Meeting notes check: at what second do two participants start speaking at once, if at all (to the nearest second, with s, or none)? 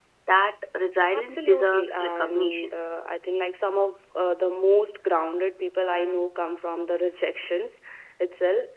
1 s